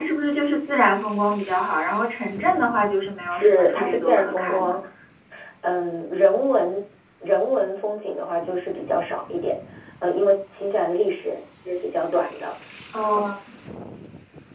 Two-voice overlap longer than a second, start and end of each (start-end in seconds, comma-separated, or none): 3.3-4.8